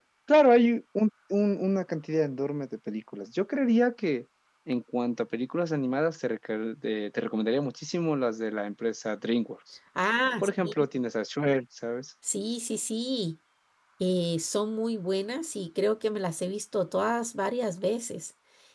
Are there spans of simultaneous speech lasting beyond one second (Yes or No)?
No